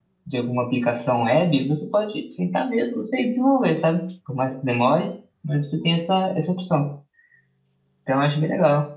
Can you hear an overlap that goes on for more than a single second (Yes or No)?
No